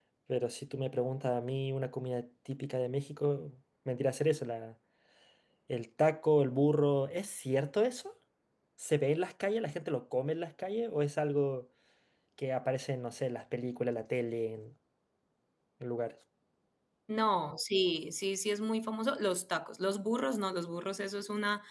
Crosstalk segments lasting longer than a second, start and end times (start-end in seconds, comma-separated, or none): none